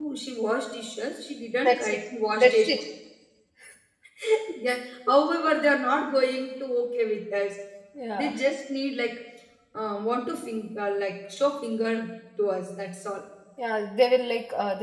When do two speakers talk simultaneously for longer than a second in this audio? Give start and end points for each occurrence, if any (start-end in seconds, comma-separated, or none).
none